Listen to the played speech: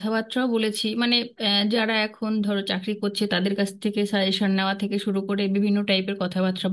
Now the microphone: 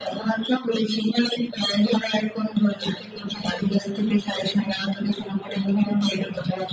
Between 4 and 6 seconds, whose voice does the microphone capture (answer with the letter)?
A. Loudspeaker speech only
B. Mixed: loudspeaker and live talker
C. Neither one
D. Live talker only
A